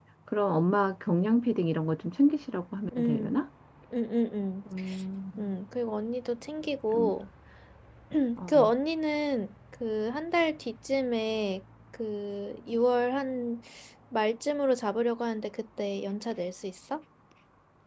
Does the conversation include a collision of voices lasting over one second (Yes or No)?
No